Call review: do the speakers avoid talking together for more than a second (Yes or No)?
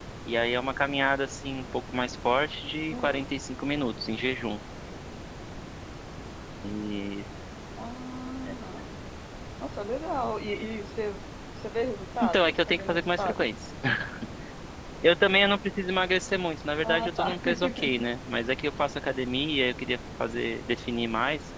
No